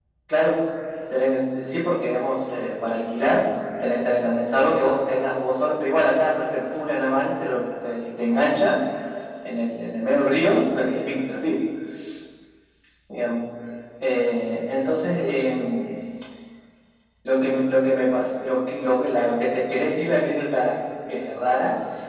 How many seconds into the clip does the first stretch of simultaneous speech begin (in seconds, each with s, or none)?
none